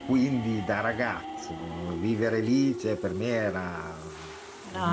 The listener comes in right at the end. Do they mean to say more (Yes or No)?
No